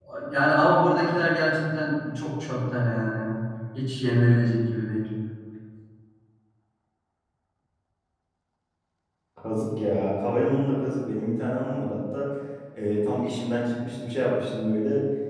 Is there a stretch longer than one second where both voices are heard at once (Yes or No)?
No